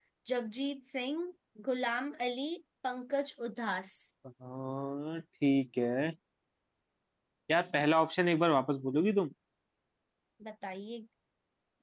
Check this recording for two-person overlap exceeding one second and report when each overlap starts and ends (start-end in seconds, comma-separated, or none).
none